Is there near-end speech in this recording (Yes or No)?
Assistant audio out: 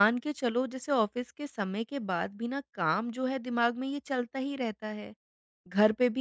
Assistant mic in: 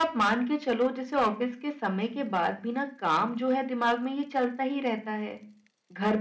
No